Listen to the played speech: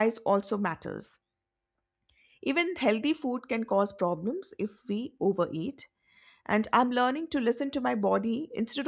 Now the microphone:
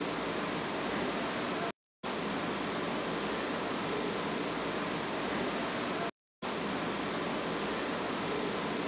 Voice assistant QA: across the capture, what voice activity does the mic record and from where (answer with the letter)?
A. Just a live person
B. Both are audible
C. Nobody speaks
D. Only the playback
C